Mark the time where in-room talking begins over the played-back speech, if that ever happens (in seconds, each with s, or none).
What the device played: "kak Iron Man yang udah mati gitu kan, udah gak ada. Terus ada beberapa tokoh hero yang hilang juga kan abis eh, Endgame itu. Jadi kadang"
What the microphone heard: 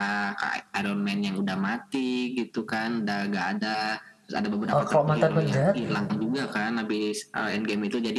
4.7 s